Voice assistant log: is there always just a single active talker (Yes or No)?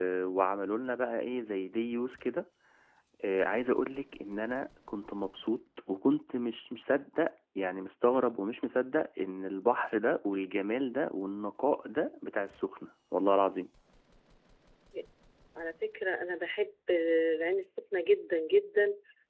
Yes